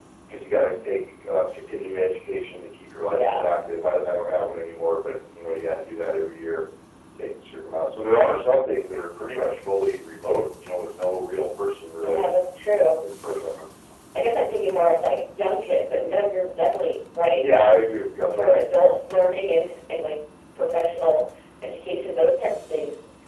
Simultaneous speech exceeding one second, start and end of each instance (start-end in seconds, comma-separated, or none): none